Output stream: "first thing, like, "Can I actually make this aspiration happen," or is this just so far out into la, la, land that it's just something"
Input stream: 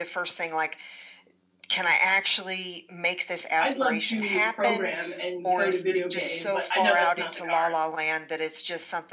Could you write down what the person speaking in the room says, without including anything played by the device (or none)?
I'd love to program, and code a video game, but I know that's not in the cards,